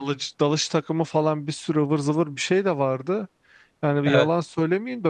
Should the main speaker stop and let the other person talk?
No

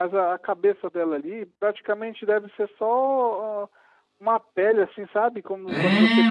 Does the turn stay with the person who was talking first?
No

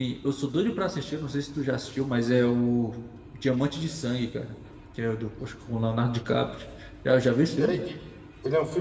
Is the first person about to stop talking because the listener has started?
Yes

